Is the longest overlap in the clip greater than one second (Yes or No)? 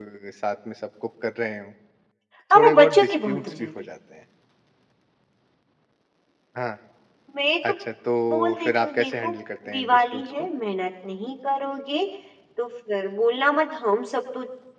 Yes